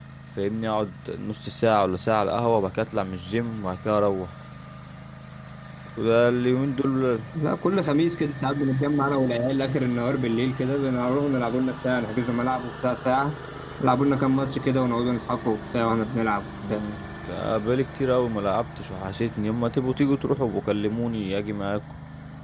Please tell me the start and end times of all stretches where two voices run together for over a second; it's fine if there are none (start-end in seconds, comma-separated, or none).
none